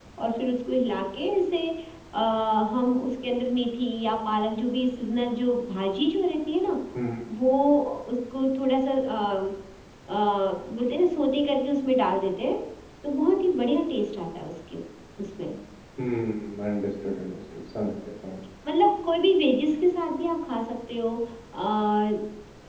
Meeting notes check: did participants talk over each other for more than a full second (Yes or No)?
No